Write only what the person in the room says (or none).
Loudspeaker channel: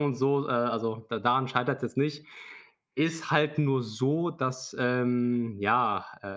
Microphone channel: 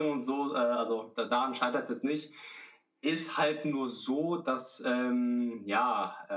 none